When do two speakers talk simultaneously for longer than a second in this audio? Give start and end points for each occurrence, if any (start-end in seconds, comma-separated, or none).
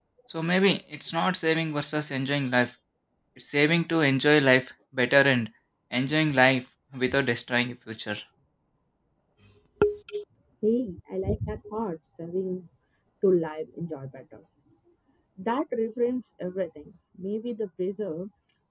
none